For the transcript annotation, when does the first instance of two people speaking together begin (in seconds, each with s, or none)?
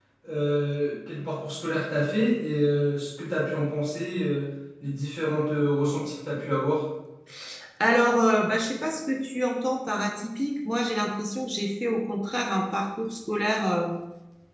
none